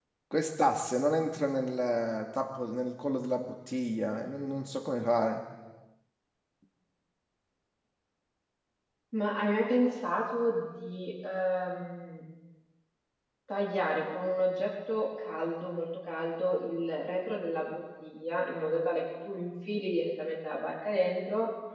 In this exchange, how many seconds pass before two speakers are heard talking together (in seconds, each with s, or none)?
none